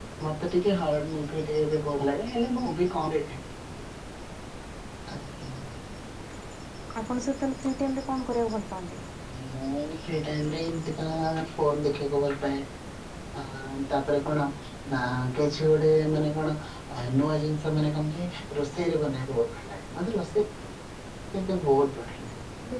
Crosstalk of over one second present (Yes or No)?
No